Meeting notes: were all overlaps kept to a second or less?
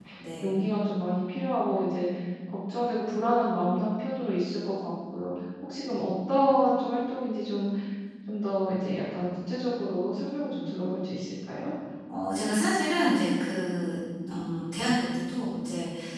Yes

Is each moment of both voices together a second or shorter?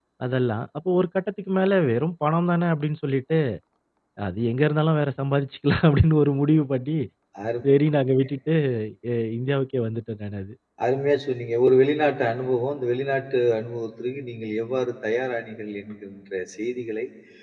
Yes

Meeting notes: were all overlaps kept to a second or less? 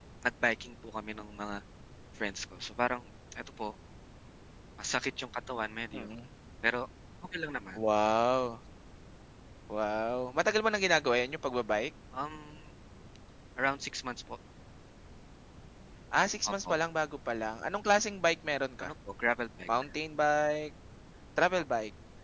Yes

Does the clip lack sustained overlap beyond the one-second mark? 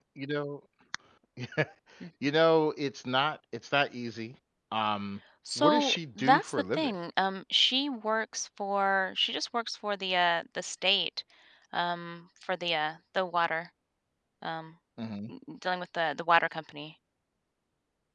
No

